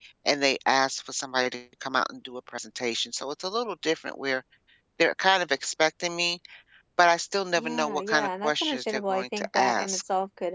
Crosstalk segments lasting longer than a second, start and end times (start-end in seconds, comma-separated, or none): 7.6-10.0